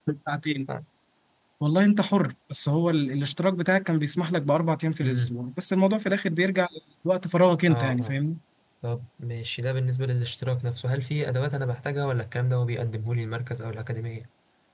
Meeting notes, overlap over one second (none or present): none